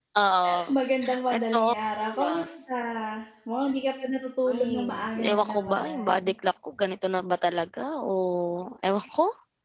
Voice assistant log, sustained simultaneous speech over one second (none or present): present